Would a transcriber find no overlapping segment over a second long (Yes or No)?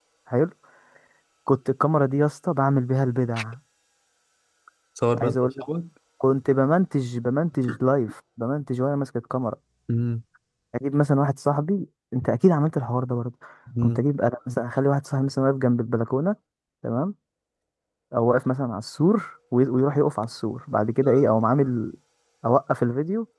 Yes